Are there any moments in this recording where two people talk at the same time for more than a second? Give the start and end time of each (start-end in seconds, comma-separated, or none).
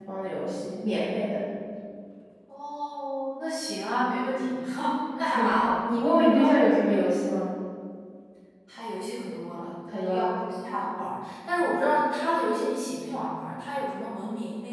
none